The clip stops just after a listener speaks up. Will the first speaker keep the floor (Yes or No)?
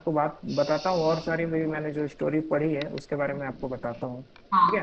No